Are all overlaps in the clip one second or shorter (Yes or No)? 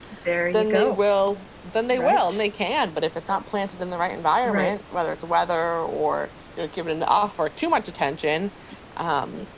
Yes